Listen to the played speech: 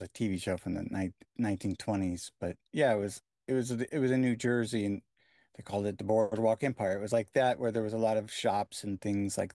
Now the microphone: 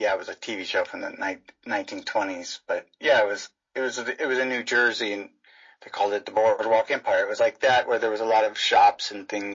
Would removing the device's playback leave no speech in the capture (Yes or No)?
Yes